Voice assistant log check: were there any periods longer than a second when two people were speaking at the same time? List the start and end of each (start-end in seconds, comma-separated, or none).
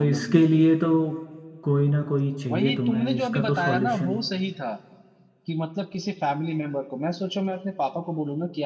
2.5-4.2